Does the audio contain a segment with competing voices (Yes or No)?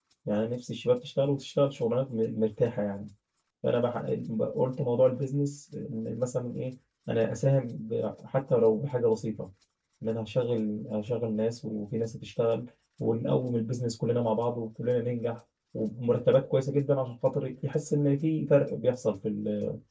No